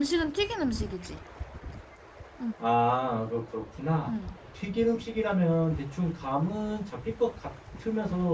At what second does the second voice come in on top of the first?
none

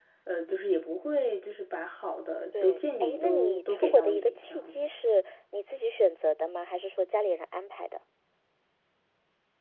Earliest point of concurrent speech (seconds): 2.5 s

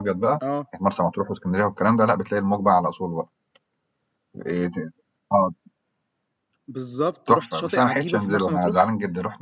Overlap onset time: 7.3 s

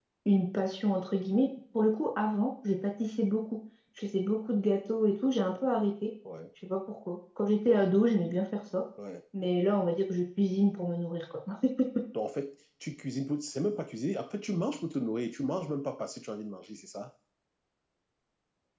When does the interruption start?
none

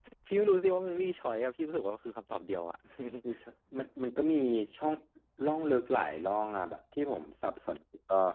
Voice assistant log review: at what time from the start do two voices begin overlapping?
none

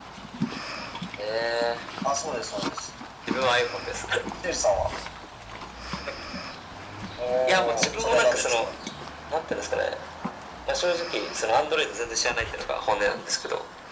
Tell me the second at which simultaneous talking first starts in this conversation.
7.4 s

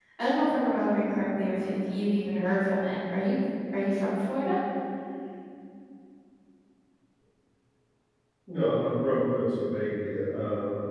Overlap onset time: none

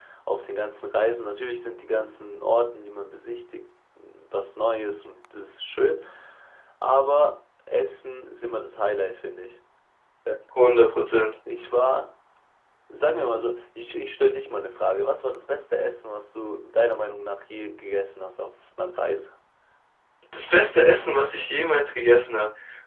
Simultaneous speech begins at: none

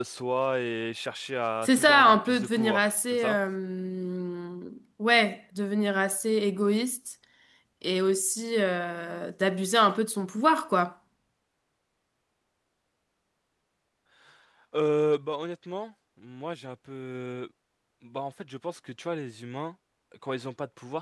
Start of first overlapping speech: 1.6 s

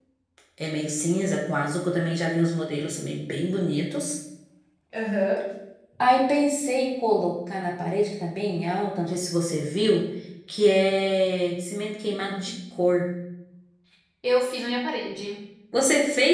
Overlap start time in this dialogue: none

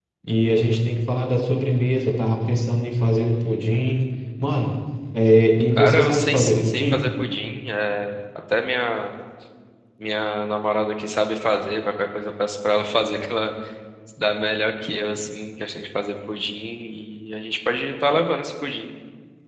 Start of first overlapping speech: 5.8 s

